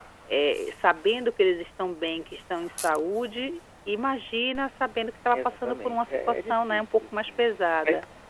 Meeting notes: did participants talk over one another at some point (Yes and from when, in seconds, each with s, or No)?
Yes, from 5.3 s